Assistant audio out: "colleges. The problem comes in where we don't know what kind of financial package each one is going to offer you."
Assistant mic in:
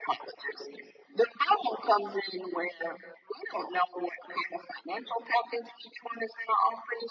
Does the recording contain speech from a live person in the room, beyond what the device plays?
No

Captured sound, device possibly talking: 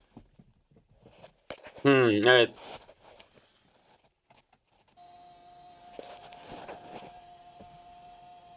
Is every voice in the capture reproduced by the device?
No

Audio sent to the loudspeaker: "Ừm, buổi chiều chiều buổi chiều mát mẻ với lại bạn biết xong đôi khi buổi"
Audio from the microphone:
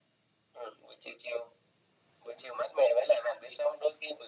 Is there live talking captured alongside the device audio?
No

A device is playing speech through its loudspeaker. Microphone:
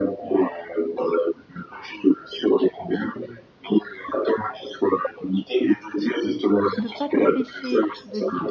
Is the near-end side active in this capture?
Yes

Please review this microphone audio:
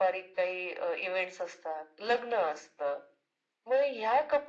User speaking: No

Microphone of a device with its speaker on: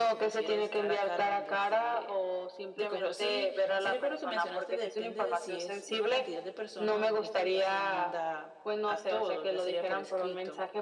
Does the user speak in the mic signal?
No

